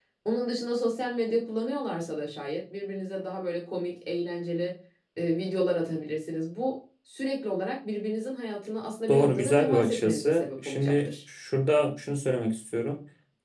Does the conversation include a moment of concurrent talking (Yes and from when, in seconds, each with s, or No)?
Yes, from 9.1 s